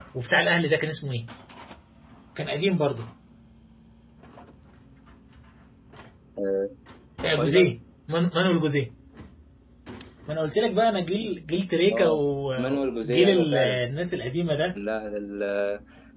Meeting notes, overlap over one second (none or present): present